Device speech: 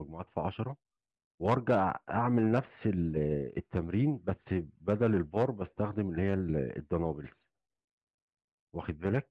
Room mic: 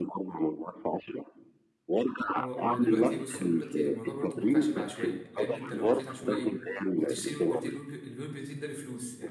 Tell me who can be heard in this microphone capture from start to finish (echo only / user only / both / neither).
both